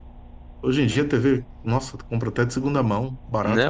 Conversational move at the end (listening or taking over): taking over